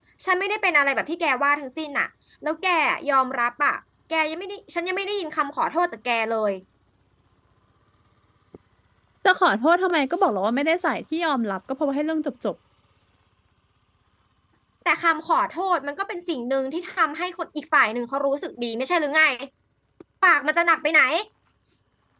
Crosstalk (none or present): none